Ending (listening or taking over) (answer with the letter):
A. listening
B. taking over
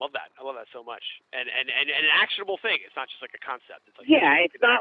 B